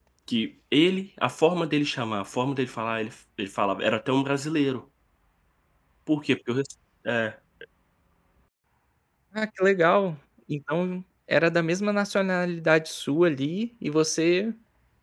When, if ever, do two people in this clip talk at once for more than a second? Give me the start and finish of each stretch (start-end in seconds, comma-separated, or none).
none